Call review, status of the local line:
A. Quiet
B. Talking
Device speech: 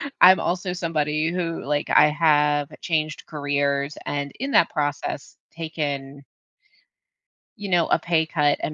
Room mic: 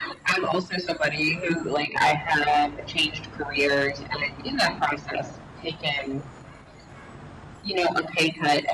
A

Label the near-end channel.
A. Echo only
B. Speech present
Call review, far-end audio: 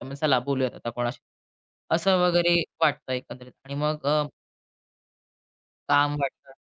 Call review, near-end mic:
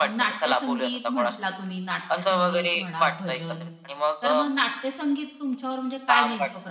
B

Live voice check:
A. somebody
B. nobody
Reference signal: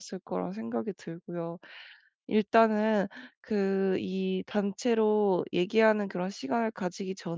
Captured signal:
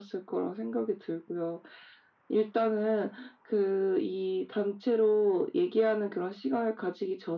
B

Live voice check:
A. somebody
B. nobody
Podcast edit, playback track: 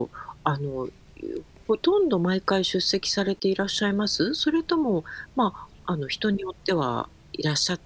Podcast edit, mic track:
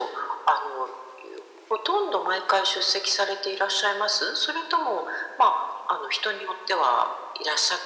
B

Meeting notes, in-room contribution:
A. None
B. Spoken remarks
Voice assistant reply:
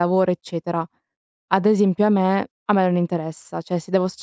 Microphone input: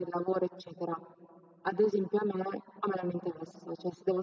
A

